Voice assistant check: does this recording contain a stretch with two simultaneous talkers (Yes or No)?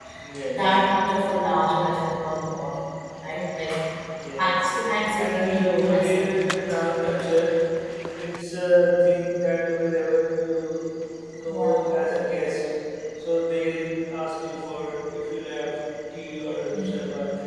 Yes